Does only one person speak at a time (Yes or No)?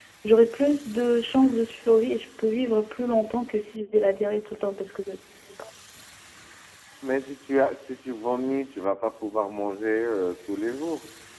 Yes